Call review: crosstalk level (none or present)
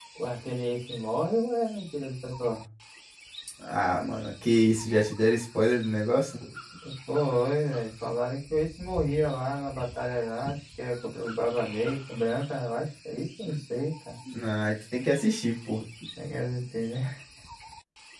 none